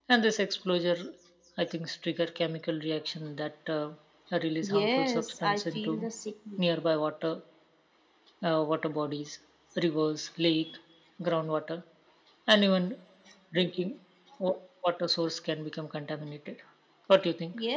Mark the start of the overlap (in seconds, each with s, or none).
4.6 s